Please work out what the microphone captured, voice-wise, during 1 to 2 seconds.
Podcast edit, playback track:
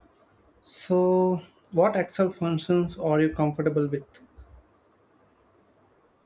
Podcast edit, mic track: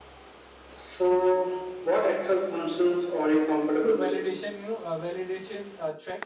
echo only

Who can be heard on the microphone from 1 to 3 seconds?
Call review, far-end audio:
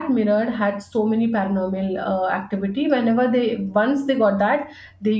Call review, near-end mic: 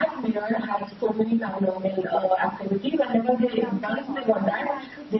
echo only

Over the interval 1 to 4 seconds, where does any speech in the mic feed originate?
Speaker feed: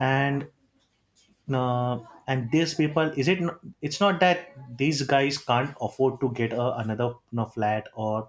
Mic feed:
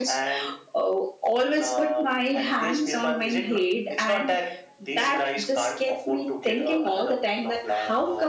both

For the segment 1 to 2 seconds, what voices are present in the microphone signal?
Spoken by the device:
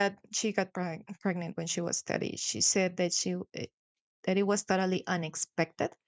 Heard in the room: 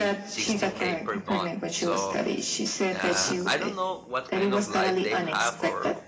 both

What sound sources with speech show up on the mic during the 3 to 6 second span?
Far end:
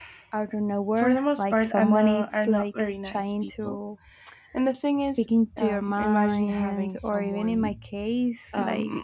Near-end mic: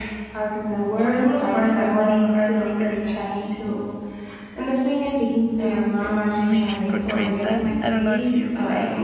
echo only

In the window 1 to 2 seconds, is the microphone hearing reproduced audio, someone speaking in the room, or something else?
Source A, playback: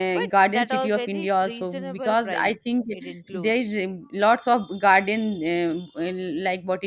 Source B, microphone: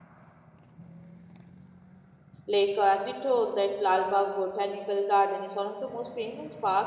neither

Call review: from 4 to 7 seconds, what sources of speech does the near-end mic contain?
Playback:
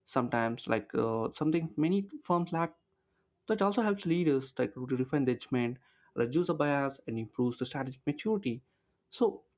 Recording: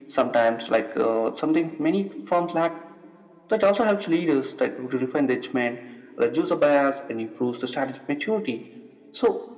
echo only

